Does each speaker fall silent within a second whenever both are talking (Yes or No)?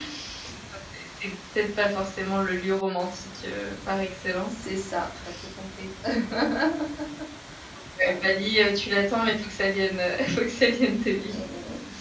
Yes